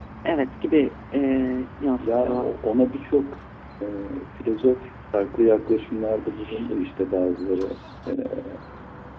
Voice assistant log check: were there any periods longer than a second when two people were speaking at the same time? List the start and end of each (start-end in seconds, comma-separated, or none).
none